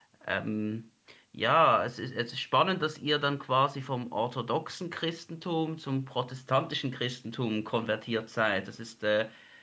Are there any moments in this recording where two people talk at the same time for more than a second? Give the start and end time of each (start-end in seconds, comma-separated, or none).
none